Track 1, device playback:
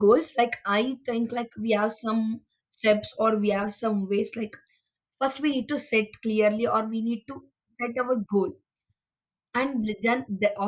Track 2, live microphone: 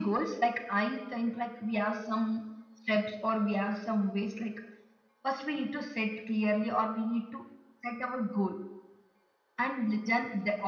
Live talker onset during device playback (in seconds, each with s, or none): none